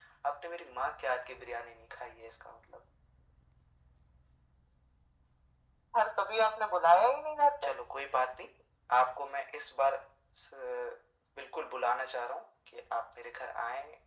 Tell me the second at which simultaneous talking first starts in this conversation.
none

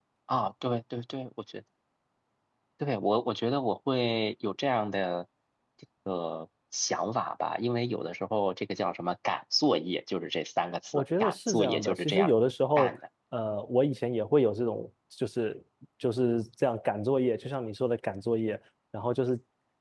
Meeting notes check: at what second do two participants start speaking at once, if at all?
11 s

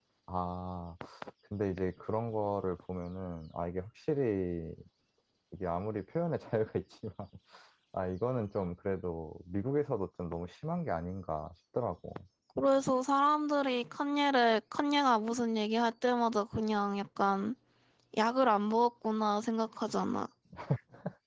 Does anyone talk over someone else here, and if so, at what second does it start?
none

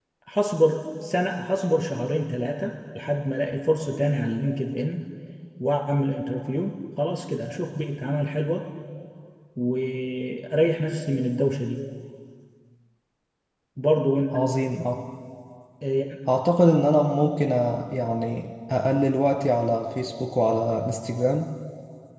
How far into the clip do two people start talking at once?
none

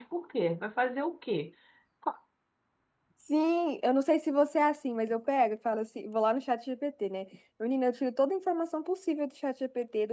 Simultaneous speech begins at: none

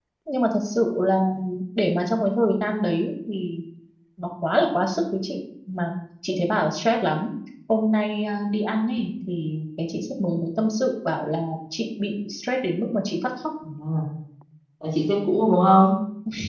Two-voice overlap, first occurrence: none

